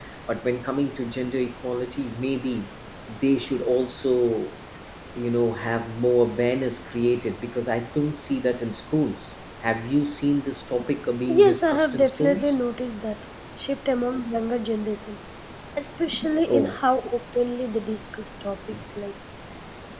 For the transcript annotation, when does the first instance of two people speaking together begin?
11.3 s

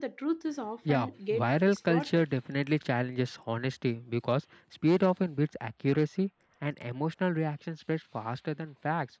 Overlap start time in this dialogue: 0.9 s

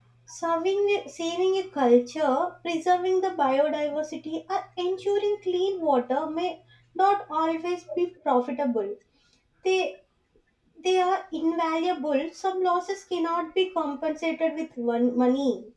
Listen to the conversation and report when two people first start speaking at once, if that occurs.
none

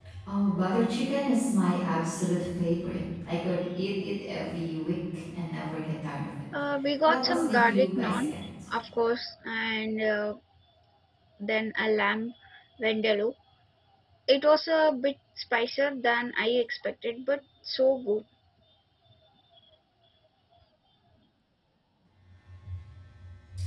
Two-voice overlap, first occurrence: 7.0 s

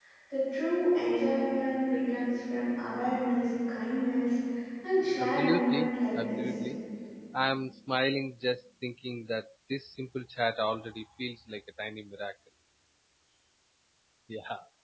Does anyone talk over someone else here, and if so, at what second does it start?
5.2 s

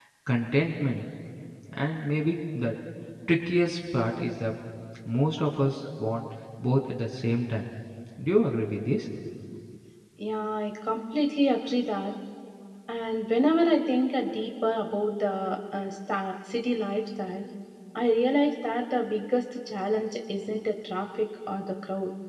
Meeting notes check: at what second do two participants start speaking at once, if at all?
none

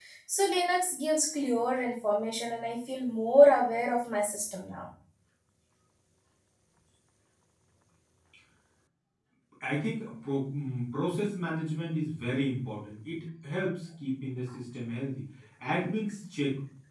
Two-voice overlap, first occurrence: none

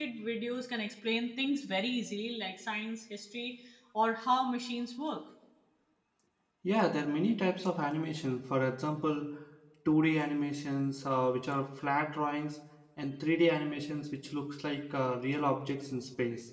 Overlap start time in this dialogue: none

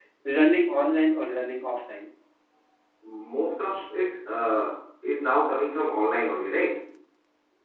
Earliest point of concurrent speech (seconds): none

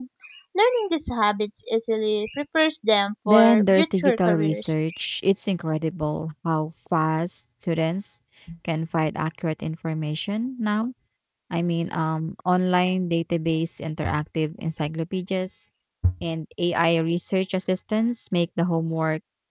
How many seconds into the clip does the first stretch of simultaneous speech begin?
3.2 s

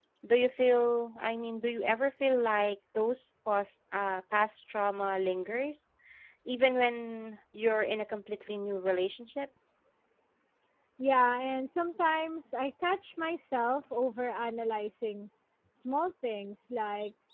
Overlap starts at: none

